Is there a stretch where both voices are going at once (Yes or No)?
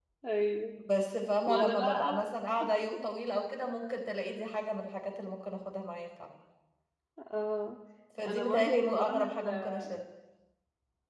Yes